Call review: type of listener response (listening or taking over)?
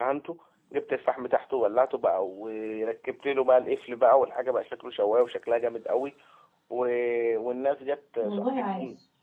listening